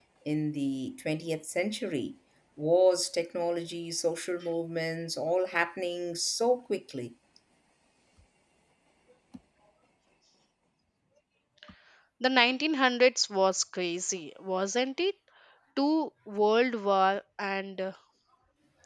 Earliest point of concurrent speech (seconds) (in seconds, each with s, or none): none